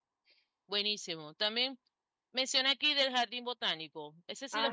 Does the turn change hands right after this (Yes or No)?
Yes